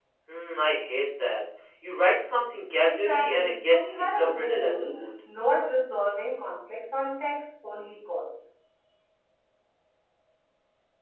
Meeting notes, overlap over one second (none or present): present